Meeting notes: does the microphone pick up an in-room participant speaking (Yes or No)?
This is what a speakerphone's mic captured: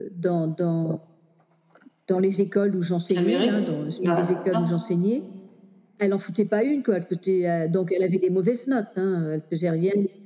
Yes